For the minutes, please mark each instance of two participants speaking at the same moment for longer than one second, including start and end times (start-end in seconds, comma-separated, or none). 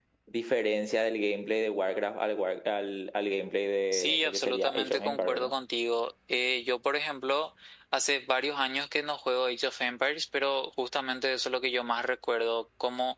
3.9-5.5